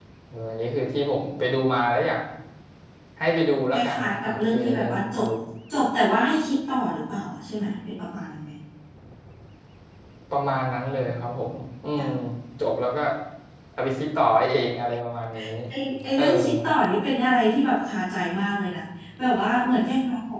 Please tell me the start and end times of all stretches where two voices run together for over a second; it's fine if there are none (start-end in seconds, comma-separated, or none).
3.7-5.2